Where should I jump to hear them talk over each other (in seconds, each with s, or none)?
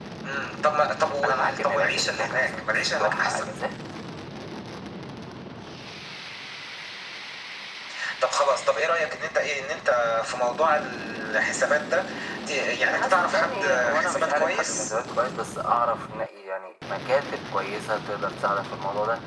1.2 s